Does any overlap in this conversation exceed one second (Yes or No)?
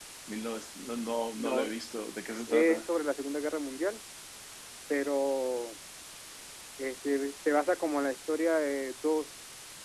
No